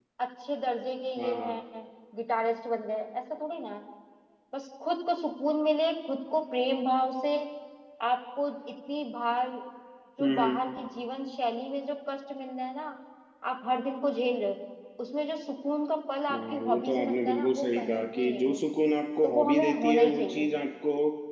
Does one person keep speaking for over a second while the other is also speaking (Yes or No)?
Yes